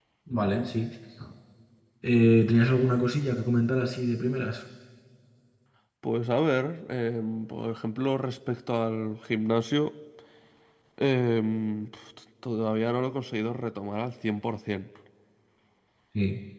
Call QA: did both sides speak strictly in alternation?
Yes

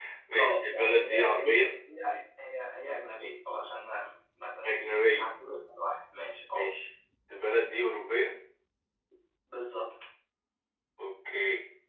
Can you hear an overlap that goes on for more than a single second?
Yes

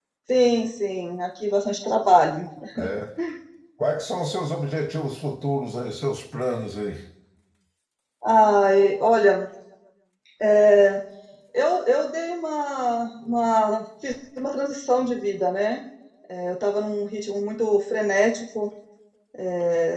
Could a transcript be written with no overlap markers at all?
Yes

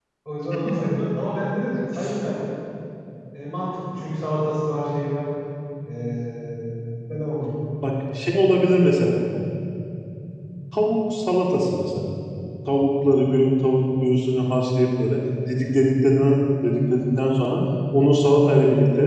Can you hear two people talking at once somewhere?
No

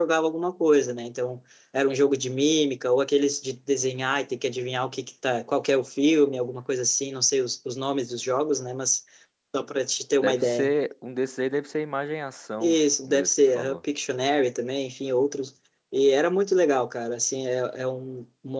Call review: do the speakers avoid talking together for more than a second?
No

